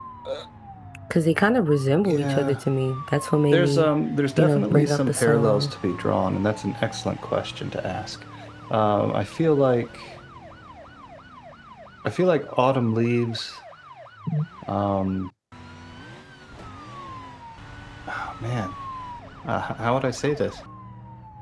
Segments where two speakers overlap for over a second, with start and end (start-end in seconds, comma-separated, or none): 4.4-5.7